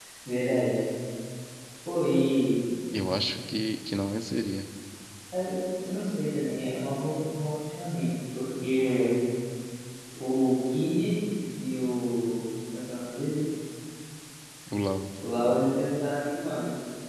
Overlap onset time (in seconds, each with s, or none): none